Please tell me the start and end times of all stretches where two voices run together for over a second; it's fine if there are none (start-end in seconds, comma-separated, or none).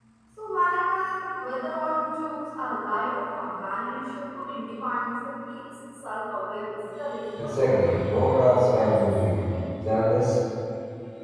7.4-9.4